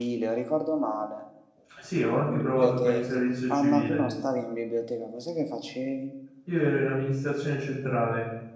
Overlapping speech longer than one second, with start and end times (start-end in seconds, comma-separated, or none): 2.2-4.0